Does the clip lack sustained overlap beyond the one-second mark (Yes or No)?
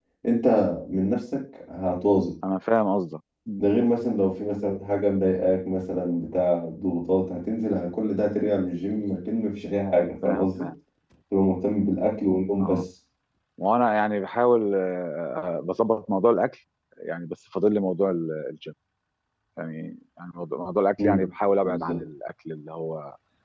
Yes